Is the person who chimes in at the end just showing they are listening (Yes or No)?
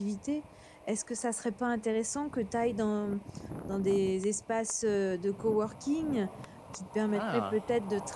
Yes